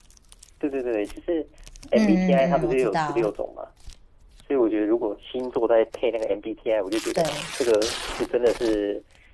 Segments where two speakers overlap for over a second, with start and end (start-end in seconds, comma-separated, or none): 1.9-3.3